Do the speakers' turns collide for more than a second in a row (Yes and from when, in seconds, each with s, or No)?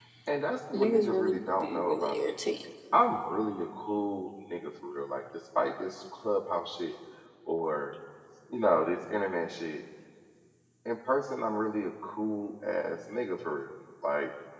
Yes, from 0.7 s